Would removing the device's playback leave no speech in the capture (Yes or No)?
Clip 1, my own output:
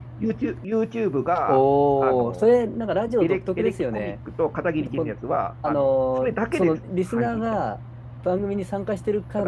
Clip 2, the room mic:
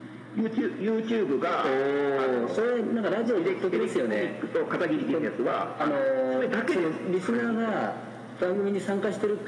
Yes